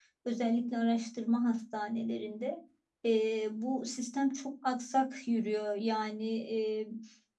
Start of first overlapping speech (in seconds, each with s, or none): none